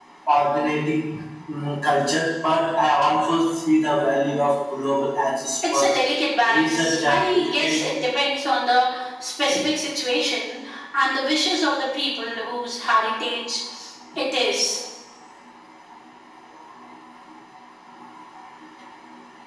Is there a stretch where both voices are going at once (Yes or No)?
Yes